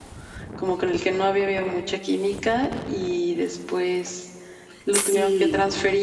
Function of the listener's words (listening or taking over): listening